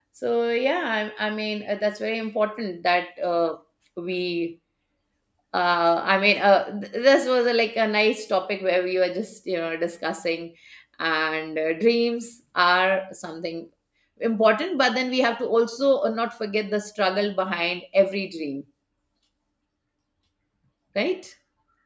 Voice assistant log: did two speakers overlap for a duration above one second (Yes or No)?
No